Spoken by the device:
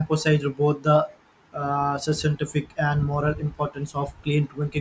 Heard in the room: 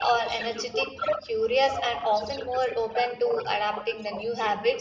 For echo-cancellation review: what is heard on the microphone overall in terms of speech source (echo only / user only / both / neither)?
both